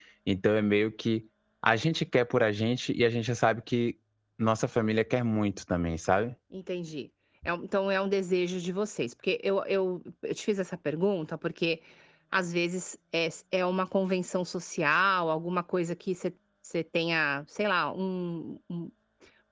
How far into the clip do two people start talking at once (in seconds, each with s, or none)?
none